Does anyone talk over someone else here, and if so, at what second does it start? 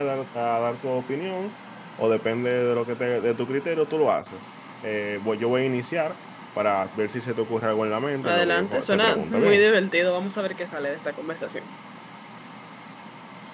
8 s

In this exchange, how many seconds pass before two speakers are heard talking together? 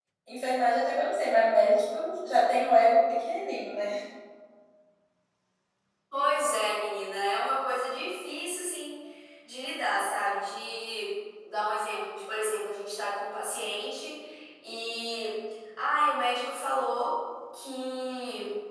none

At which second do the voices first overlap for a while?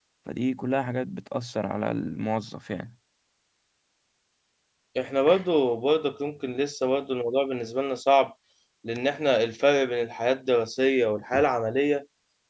none

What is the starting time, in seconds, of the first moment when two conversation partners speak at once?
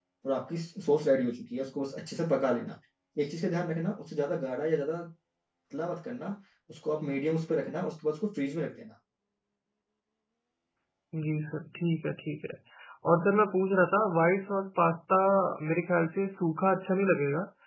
none

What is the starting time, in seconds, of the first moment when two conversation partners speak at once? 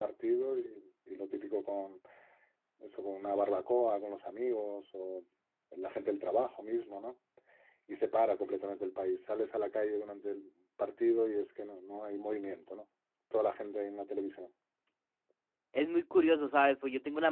none

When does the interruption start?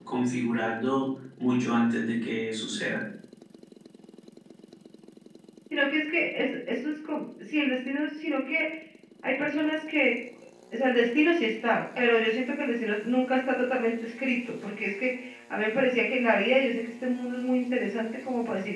none

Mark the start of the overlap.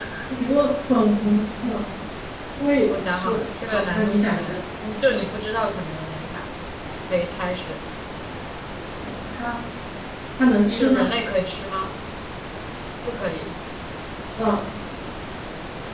3 s

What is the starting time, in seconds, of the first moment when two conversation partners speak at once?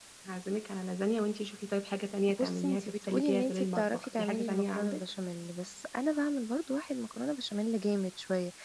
2 s

